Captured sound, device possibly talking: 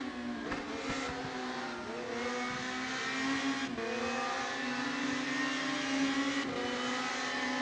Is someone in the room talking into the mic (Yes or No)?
No